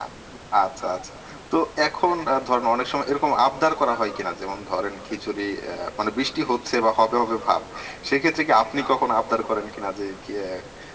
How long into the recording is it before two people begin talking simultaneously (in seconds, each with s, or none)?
none